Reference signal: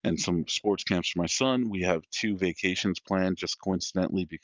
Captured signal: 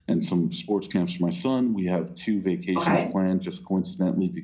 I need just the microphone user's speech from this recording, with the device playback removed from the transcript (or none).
Okay.